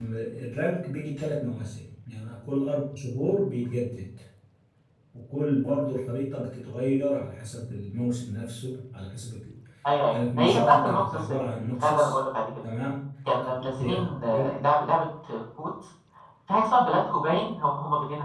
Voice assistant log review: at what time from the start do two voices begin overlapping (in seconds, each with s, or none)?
10.1 s